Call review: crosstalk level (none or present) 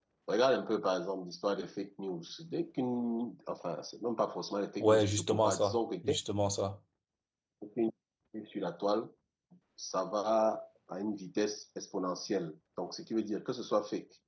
present